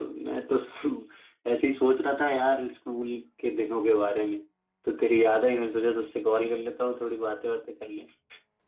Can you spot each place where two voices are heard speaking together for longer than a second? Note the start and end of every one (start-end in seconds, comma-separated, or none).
none